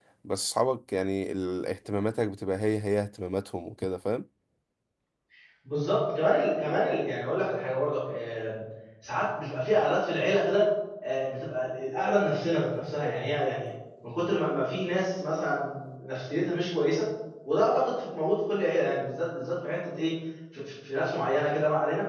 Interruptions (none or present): none